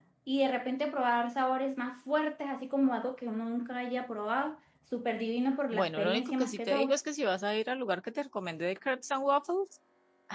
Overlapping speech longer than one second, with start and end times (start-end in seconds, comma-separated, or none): 5.7-7.0